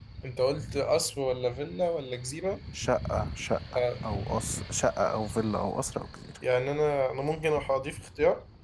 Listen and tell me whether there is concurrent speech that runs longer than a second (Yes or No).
No